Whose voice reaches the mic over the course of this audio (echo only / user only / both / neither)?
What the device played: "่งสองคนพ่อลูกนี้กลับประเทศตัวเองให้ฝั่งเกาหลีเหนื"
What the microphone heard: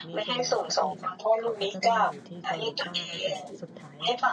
both